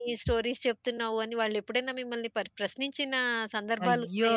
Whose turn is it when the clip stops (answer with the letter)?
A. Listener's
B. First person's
A